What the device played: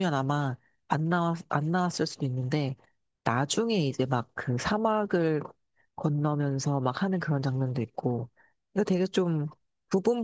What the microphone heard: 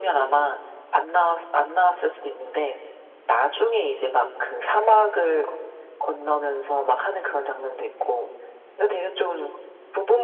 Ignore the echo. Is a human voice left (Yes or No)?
No